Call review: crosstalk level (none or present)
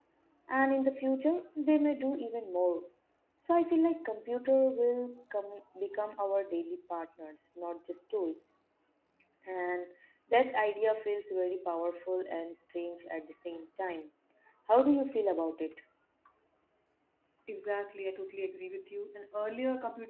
none